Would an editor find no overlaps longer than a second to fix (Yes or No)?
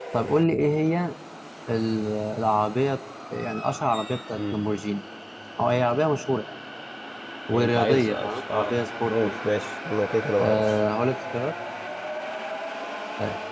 No